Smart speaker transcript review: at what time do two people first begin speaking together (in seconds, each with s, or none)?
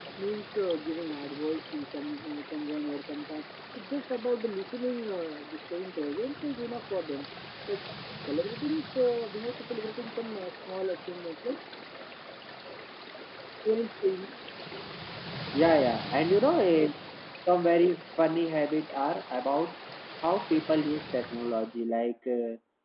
none